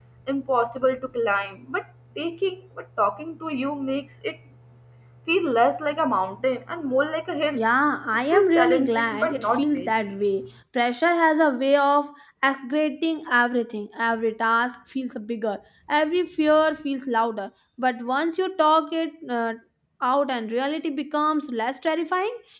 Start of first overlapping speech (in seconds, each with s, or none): 8.1 s